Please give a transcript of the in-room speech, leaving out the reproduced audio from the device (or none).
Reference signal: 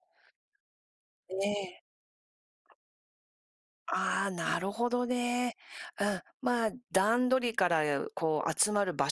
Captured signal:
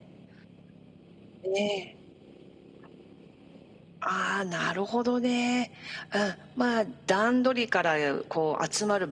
none